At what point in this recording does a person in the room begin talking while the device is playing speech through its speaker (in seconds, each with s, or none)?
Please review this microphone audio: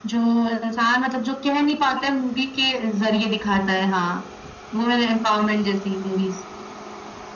none